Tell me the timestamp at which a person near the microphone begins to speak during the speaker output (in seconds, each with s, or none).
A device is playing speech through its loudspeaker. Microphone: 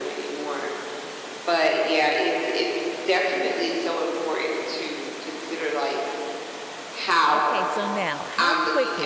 7.3 s